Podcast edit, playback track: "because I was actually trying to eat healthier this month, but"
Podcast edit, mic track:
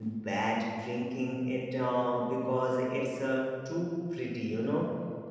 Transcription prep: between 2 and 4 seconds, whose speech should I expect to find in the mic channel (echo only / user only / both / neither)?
user only